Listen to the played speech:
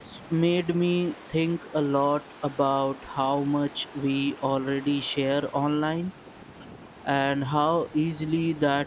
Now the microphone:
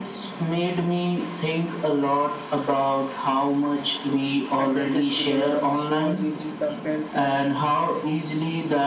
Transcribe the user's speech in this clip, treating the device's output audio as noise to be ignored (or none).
uh, details to the war so reaches the felt uh,